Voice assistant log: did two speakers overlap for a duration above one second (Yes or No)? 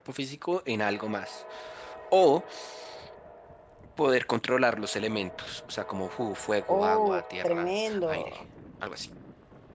Yes